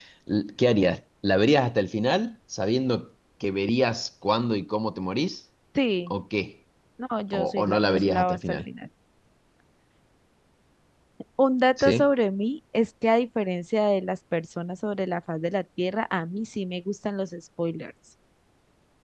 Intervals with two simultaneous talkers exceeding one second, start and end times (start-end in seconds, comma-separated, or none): 7.3-8.6